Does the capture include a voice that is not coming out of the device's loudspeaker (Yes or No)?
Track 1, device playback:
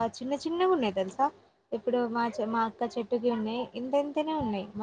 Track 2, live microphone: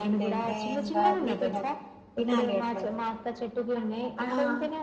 Yes